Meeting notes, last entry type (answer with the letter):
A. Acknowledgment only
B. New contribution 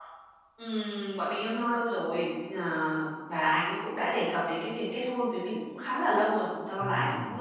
A